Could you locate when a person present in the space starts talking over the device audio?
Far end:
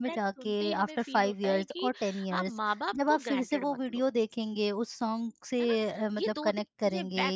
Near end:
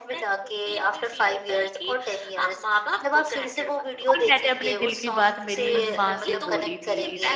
4.1 s

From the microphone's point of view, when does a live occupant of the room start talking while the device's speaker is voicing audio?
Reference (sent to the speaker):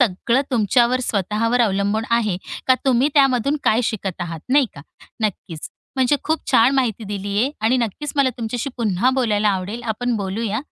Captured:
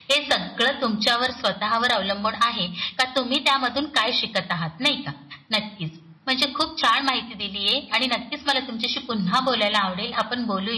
none

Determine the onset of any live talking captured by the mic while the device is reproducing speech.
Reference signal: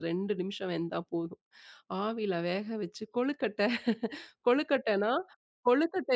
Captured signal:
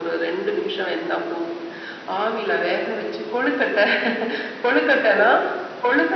none

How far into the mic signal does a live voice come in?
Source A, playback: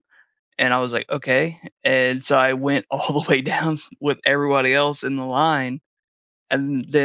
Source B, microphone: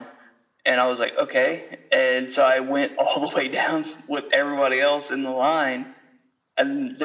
none

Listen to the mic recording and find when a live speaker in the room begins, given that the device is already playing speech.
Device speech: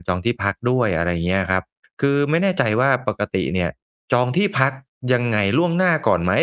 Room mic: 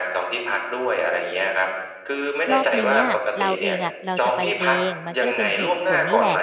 2.5 s

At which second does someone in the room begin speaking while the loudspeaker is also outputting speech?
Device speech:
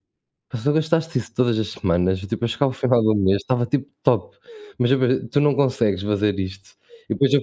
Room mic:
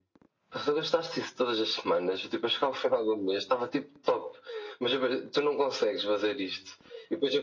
none

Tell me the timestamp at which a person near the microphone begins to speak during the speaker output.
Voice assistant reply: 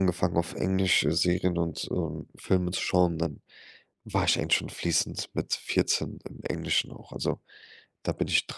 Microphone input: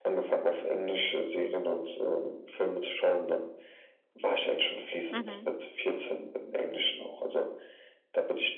5.1 s

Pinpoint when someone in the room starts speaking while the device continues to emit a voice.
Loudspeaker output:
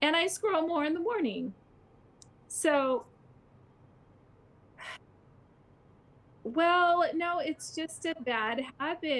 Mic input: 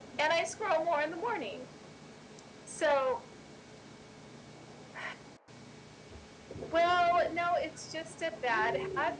none

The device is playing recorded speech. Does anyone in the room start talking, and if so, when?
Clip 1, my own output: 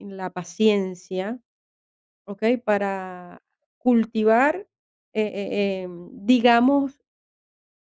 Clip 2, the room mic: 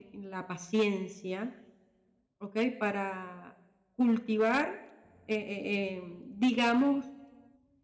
none

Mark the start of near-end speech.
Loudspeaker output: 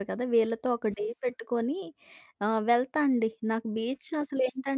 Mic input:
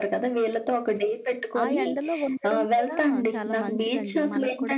1.6 s

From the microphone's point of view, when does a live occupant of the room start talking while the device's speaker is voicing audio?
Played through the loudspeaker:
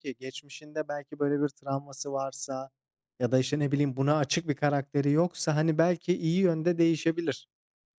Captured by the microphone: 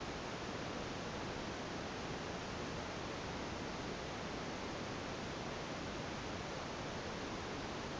none

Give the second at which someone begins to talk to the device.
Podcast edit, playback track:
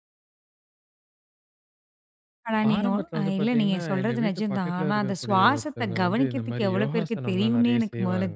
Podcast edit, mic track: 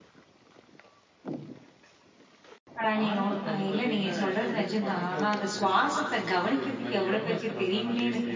none

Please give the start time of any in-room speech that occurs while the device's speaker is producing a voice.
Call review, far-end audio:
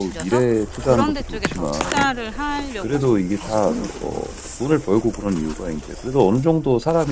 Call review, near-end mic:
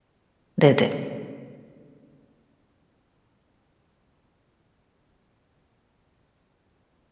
0.6 s

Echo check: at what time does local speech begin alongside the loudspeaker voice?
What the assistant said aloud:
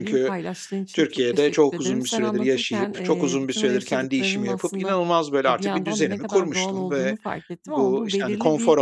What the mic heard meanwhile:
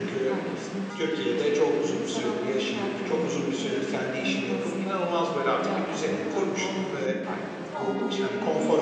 none

